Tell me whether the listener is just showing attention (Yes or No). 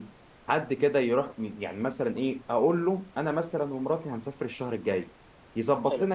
Yes